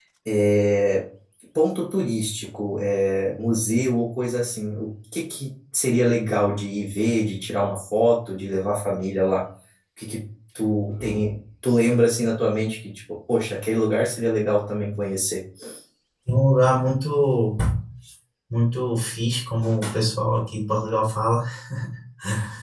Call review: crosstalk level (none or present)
none